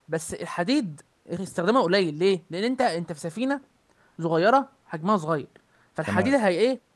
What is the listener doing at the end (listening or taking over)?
listening